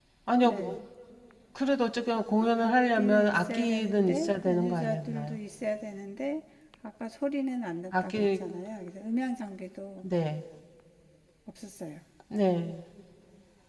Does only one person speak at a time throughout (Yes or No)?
No